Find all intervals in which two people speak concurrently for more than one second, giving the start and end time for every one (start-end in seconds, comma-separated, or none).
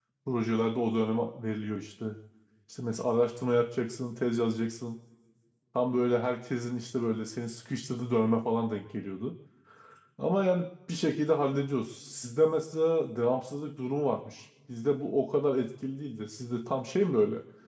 none